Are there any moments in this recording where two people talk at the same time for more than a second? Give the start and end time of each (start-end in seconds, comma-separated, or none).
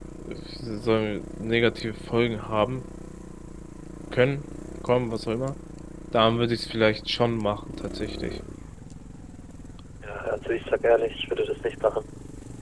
none